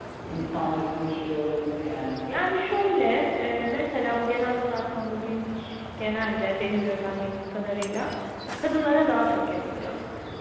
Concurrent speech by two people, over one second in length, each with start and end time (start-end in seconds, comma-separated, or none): none